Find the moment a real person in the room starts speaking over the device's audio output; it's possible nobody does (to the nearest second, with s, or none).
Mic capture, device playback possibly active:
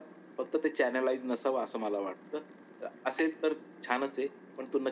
none